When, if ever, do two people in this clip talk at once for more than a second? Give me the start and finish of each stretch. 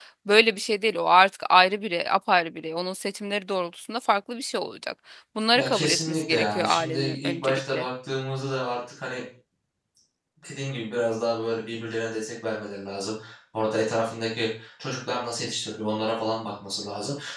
5.6-7.8

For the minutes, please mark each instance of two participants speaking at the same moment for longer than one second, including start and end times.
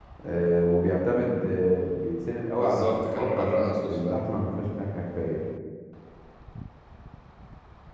2.5-4.2

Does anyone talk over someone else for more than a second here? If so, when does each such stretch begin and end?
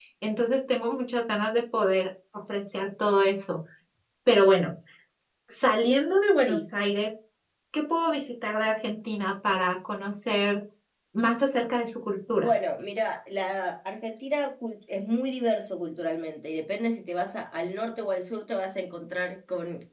none

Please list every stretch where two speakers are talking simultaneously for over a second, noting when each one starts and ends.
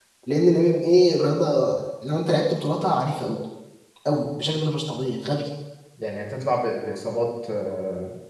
none

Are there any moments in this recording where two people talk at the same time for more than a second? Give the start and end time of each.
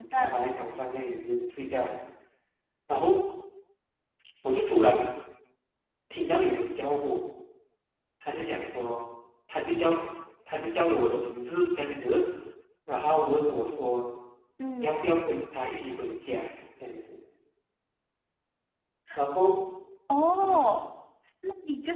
none

